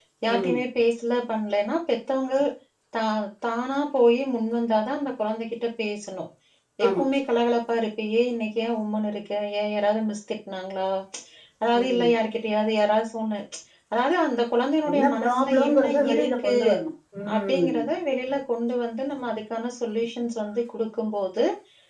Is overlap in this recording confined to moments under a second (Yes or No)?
No